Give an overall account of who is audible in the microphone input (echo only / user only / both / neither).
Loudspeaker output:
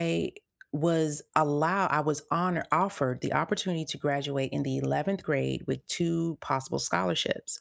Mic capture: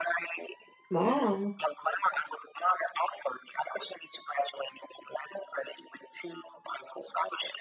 both